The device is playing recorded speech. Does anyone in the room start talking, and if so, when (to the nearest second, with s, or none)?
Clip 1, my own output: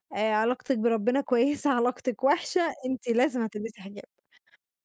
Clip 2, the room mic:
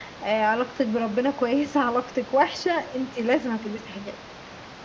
none